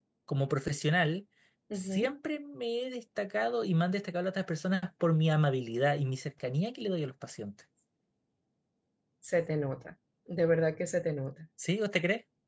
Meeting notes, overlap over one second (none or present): none